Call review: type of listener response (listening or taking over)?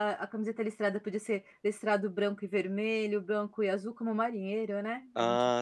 taking over